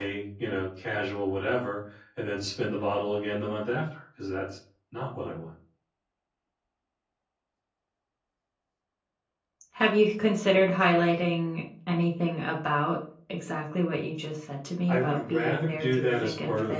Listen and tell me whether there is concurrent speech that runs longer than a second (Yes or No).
Yes